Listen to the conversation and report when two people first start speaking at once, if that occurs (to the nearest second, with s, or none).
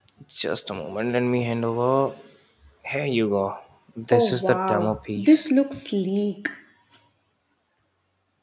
4 s